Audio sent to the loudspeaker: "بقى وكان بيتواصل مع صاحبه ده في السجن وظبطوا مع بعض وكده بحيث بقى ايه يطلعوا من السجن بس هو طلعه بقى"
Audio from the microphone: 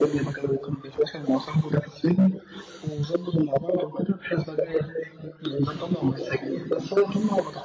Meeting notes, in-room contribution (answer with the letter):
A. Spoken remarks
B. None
B